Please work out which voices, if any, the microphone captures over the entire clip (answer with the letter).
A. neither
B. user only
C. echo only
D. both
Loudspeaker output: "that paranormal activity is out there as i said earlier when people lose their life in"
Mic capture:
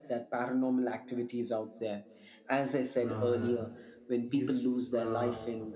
D